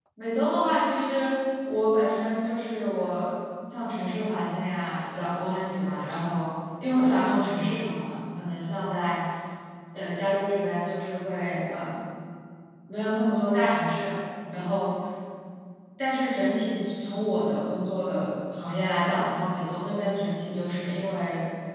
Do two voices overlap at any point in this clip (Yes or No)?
No